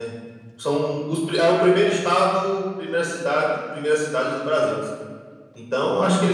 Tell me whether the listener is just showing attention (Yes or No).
Yes